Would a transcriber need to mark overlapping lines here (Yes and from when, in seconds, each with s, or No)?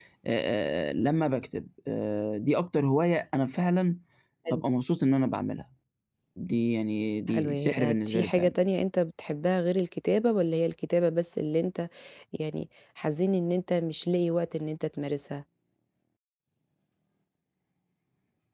Yes, from 7.3 s